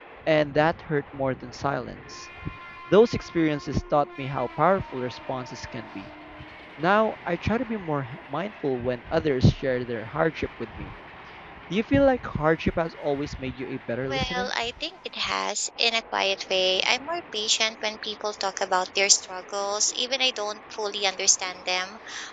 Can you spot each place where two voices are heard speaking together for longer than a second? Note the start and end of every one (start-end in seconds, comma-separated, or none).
none